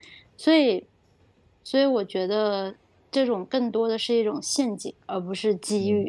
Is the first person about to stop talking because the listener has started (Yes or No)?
Yes